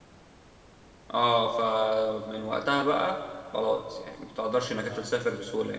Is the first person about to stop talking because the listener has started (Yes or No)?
No